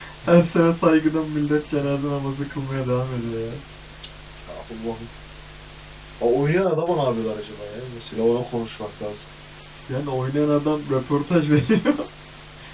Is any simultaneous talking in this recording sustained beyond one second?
No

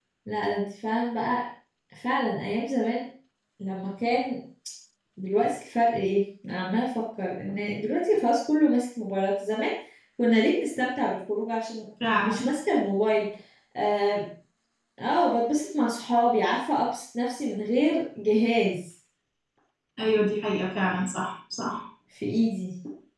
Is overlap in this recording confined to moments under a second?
Yes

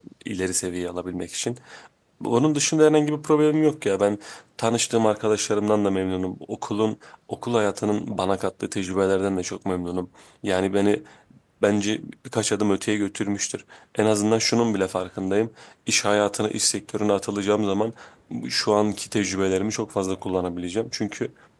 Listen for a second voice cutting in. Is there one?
No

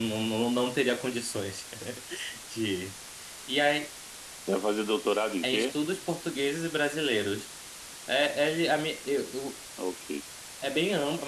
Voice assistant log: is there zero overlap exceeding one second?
Yes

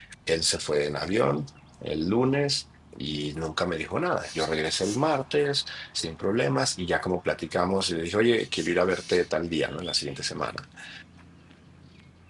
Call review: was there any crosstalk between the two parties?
No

